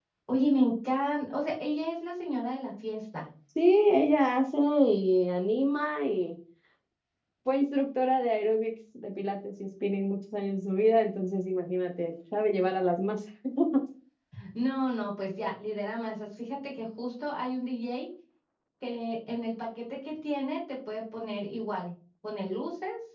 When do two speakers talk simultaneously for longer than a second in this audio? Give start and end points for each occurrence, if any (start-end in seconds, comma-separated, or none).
none